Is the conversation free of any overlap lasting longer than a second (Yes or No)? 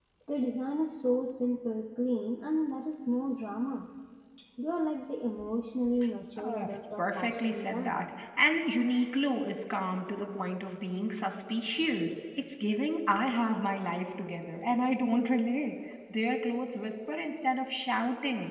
No